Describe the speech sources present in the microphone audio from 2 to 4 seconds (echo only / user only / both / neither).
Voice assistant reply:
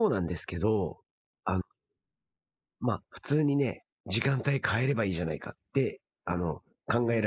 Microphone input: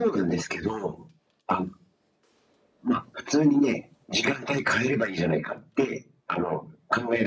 echo only